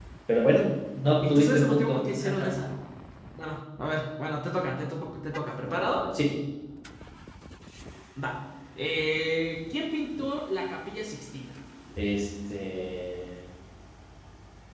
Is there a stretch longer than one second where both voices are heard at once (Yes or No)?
Yes